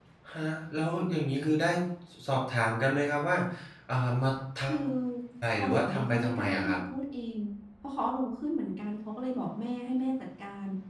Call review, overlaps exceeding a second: present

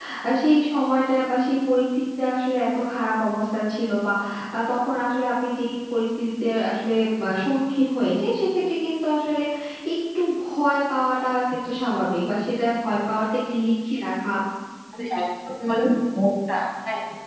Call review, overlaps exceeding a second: none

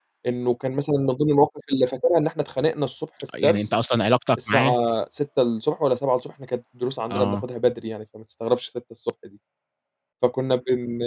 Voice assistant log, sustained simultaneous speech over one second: none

